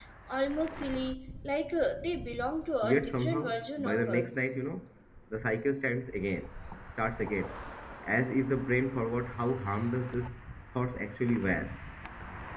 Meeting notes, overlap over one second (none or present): present